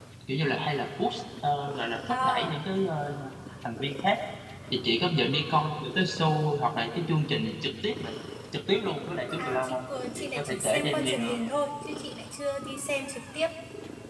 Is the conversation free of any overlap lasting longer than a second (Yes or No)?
No